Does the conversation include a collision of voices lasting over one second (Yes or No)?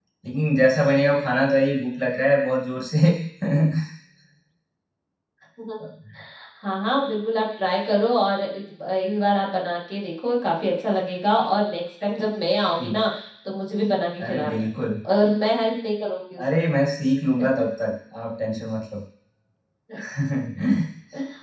No